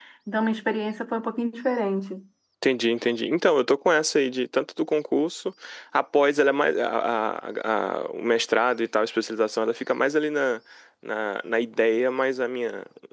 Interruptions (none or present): none